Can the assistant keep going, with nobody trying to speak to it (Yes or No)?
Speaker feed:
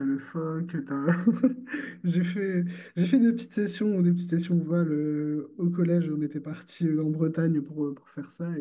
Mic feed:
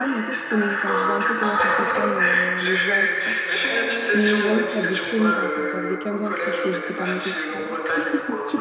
No